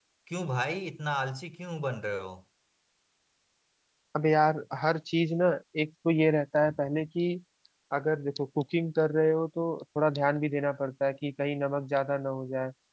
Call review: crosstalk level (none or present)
none